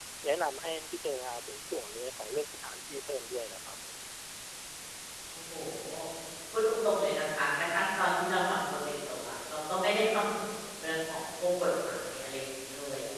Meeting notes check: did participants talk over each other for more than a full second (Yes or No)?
No